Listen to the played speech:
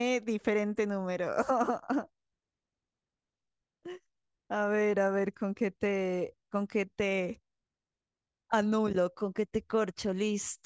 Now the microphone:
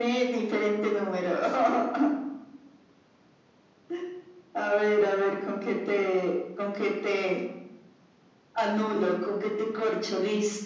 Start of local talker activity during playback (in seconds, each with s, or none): none